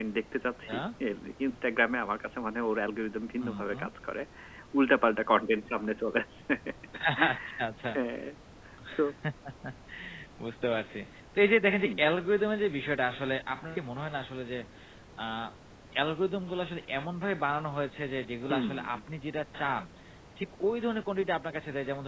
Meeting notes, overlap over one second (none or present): none